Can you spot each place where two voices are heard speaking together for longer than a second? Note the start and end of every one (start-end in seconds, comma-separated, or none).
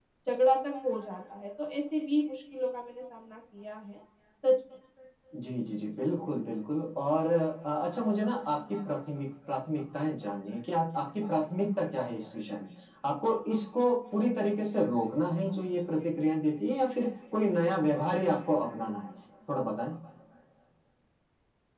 none